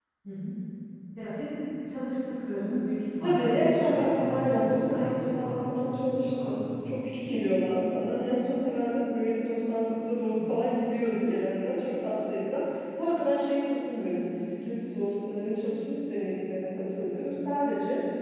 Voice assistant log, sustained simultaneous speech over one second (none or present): present